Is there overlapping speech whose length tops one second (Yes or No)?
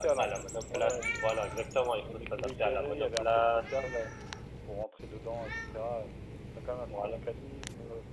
Yes